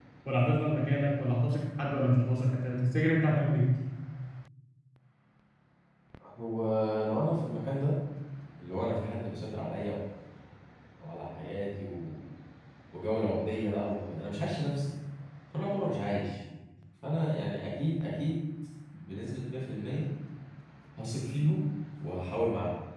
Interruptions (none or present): none